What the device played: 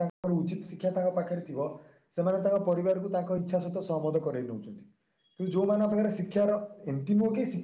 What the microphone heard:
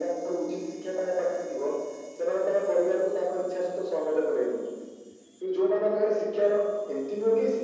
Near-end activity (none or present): none